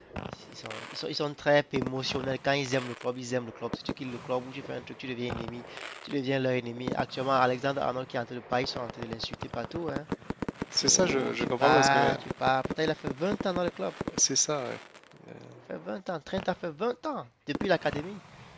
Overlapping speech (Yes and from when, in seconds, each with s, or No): Yes, from 10.8 s